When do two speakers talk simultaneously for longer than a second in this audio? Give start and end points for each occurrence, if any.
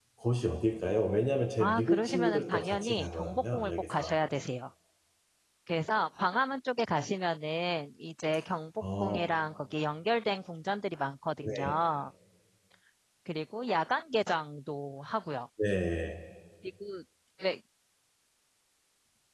1.6-4.1

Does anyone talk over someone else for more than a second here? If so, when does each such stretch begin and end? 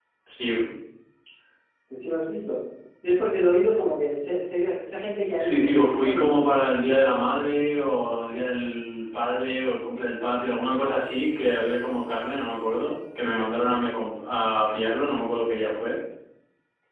5.4-6.9

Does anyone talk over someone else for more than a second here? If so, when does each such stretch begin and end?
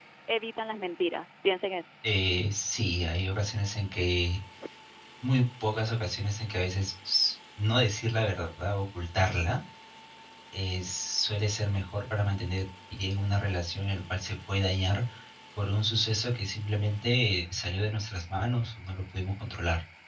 none

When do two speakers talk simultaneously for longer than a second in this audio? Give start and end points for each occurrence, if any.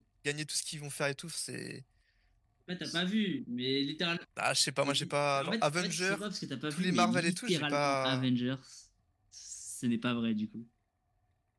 4.8-6.2, 6.7-8.3

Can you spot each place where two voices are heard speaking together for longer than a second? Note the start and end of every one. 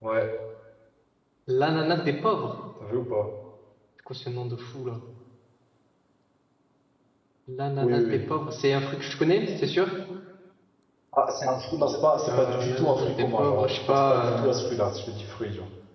12.3-14.6

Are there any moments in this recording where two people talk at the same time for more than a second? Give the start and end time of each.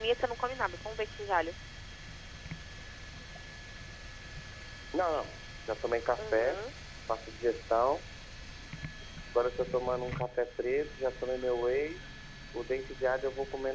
none

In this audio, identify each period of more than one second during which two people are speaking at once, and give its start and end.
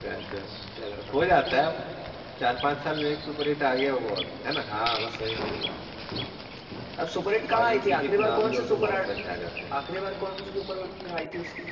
7.6-9.2

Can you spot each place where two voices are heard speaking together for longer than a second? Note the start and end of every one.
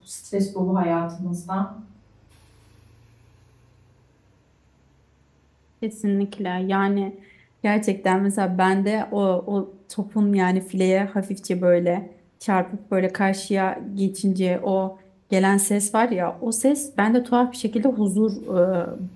none

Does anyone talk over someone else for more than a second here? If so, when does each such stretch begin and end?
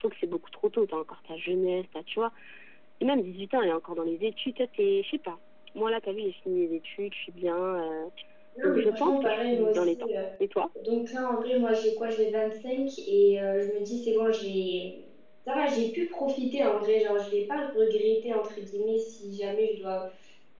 8.6-10.0

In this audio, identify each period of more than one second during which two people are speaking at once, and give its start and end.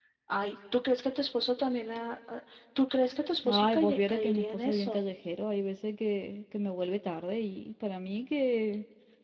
3.5-5.0

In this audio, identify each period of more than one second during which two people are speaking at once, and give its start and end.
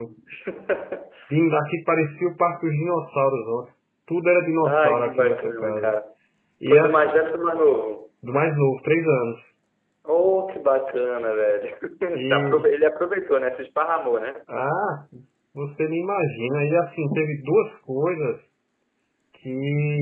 4.6-5.9

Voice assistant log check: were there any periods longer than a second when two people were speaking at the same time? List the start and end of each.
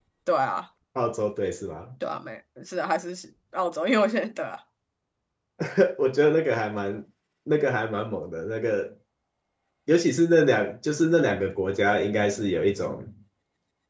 none

